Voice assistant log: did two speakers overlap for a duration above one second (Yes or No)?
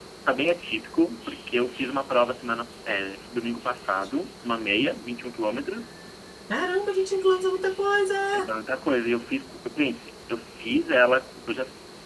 No